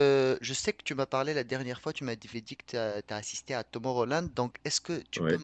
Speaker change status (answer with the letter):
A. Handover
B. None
B